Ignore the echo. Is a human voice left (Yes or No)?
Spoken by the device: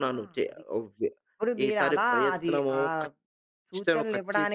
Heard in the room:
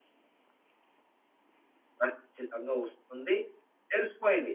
Yes